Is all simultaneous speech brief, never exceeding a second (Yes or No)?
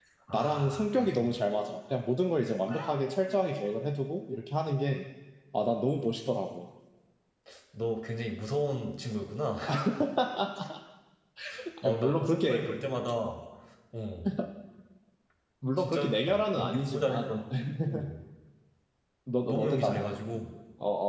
No